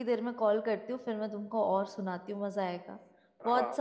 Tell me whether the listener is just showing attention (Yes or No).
No